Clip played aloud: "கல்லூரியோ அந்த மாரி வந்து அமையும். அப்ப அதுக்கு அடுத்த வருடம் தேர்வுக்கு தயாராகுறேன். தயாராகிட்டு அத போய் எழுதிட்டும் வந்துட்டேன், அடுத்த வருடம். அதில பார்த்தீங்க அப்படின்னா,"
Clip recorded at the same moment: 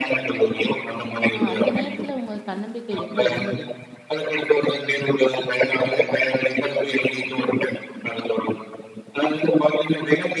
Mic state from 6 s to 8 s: echo only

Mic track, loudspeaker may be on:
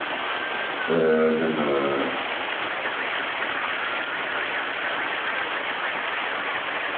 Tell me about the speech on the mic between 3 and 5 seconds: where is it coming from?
neither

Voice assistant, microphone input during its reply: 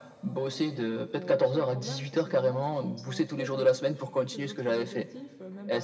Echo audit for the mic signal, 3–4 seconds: both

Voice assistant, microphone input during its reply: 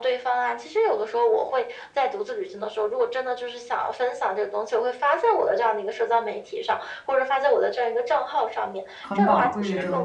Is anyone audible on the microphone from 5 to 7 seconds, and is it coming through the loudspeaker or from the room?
echo only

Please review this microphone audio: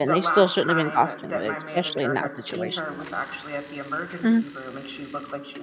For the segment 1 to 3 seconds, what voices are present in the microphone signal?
both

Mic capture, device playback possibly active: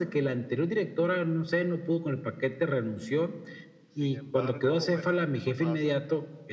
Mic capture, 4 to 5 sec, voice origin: both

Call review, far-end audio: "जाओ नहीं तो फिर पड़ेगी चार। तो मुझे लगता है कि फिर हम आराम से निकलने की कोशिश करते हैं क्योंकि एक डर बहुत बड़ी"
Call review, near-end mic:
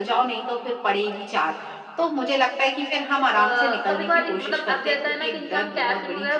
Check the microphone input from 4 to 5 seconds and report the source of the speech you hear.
both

